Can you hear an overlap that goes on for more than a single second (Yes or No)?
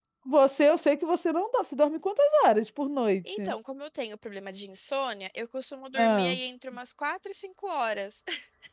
No